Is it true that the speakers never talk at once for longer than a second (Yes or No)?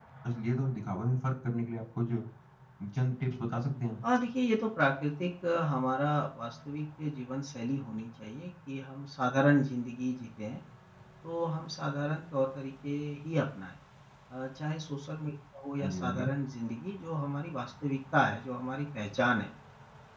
Yes